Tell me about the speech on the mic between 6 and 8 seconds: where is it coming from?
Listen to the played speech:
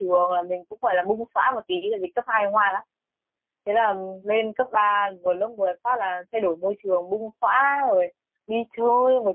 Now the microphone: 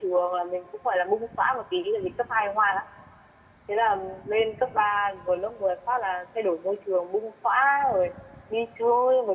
echo only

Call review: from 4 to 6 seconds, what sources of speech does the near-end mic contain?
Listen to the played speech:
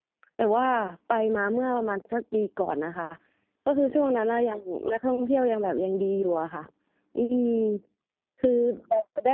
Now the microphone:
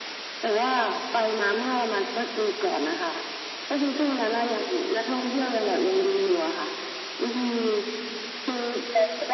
echo only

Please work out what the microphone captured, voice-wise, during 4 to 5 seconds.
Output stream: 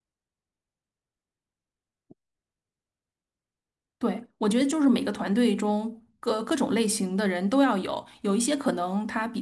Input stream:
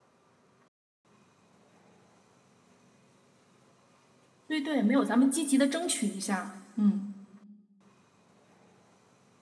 user only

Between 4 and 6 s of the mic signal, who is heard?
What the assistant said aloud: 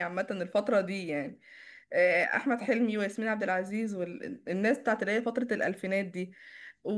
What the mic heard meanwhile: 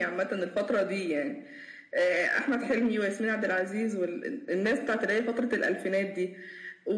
echo only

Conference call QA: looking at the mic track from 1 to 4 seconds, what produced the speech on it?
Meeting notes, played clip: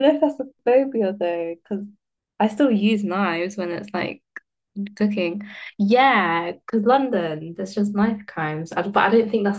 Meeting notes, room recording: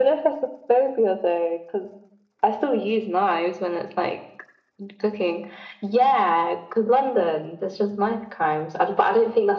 echo only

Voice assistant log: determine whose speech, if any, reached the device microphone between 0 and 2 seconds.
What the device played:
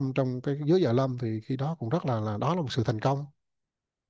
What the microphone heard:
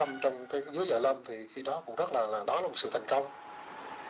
echo only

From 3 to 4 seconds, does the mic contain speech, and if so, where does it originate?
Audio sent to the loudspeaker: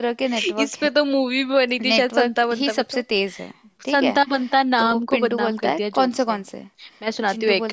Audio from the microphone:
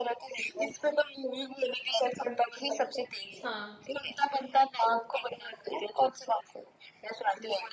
both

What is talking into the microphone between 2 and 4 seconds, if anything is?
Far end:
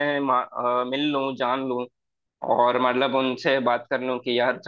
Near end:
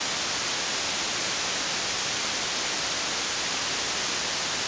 neither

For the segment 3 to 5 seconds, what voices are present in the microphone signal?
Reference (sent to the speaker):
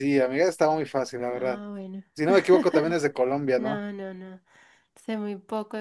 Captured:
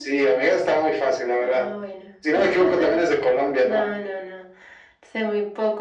echo only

